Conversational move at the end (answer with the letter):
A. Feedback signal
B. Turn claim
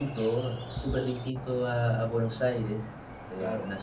A